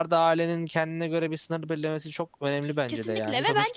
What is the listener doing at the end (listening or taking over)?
taking over